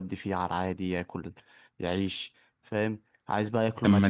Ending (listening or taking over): listening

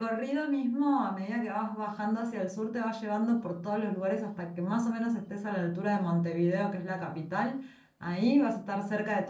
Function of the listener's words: listening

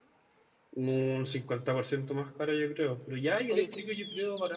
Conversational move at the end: listening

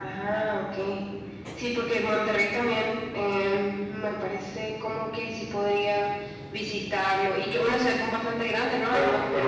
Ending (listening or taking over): taking over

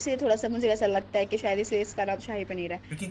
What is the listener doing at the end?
taking over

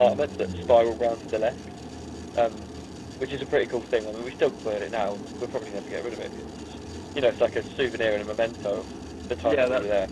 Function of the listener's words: taking over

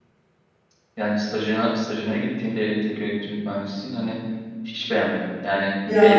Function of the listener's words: listening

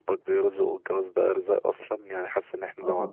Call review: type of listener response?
listening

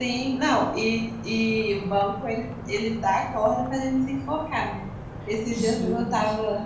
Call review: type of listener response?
listening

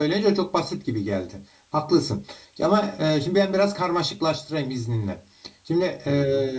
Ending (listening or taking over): listening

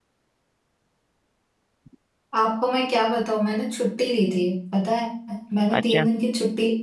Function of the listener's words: listening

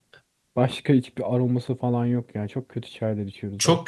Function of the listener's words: taking over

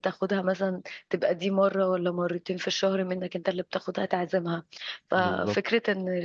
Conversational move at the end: listening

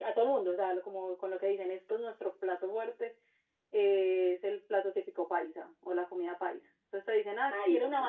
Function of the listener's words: listening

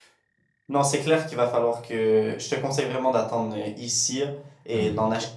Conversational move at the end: listening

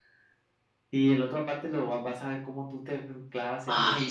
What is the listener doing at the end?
taking over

